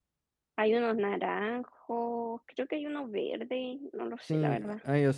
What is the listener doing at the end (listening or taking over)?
taking over